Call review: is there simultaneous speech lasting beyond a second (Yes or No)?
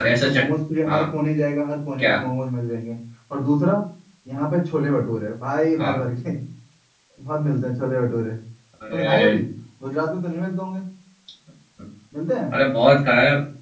No